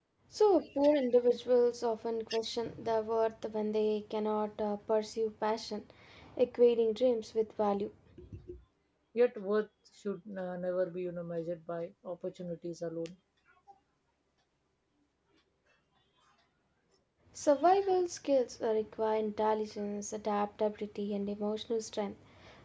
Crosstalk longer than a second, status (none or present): none